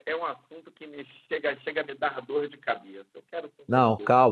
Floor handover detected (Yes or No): Yes